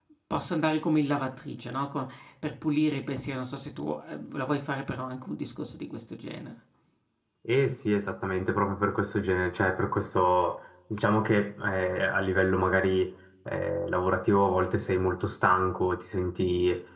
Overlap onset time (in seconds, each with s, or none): none